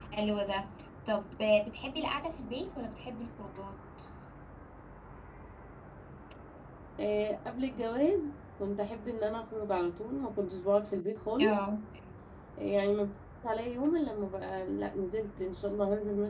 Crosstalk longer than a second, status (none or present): none